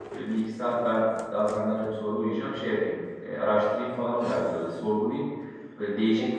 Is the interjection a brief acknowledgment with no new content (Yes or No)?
Yes